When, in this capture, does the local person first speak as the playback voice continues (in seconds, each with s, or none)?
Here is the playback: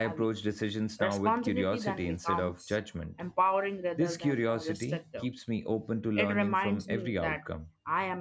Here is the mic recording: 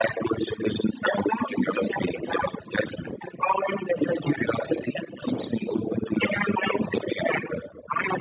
none